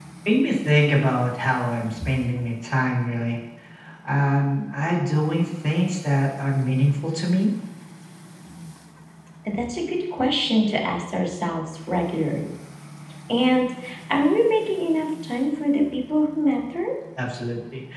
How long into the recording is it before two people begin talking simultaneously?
none

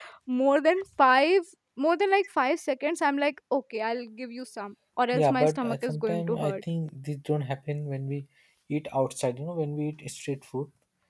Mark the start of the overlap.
5.1 s

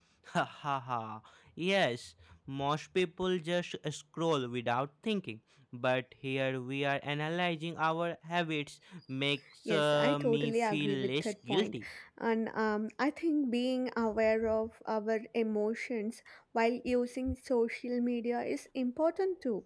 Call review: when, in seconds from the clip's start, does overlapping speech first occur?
9.7 s

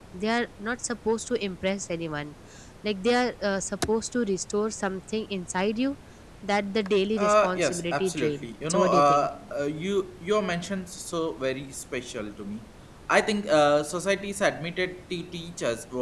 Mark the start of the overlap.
7.2 s

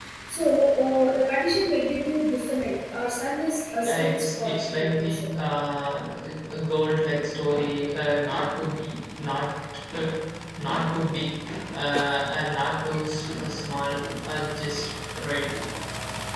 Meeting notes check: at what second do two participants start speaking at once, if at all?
3.8 s

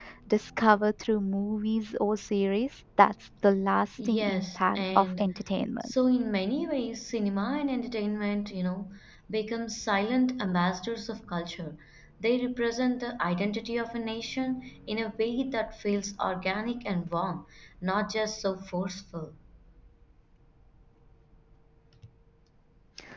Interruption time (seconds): 4.0 s

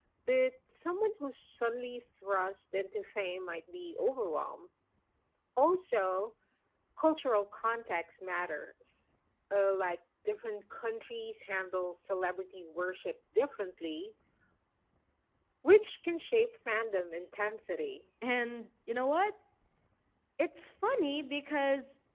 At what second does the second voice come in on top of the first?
none

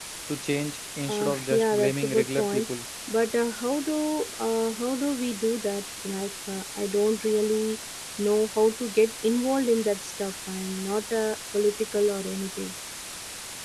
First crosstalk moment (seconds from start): 1.1 s

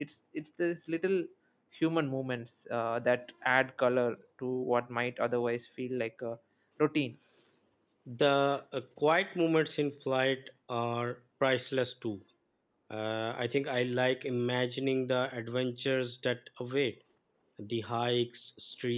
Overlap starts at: none

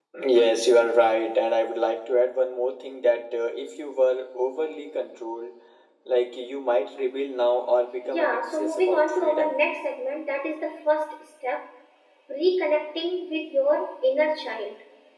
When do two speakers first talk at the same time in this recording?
8.1 s

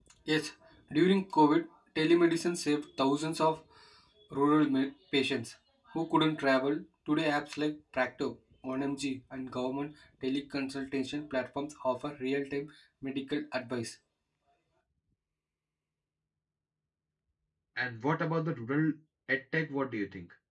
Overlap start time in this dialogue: none

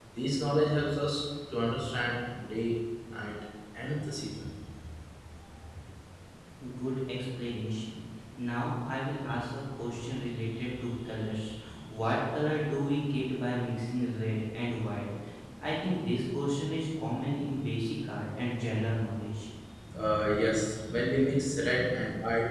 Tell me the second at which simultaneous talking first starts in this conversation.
none

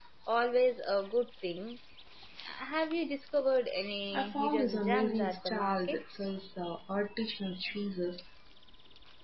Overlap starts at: 4.1 s

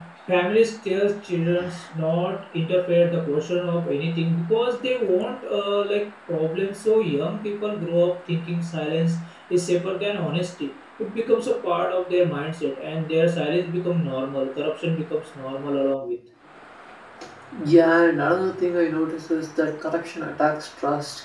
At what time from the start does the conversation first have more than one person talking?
none

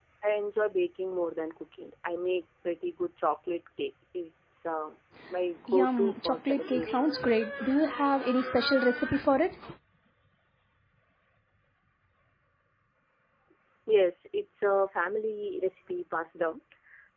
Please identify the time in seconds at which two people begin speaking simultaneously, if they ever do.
5.7 s

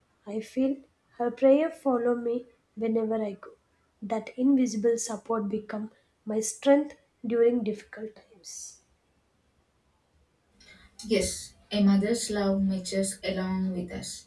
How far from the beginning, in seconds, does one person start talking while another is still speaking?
none

